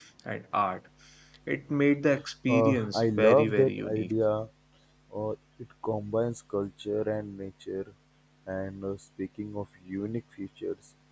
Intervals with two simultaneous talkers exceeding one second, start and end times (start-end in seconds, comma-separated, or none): 2.5-4.1